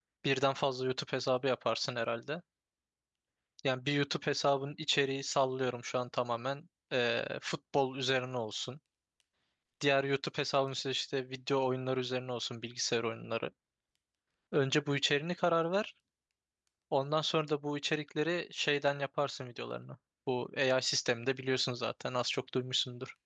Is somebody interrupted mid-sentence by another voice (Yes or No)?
No